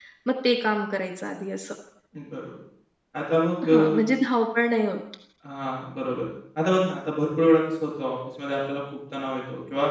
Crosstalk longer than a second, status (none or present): none